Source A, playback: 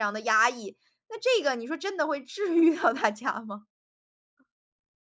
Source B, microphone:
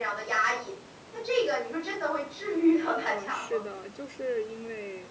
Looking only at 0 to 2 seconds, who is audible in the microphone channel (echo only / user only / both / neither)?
echo only